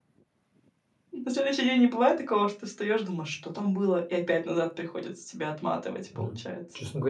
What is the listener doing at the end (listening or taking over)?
taking over